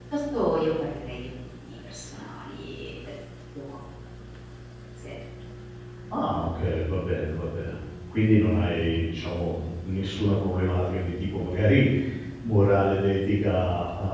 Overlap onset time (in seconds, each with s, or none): none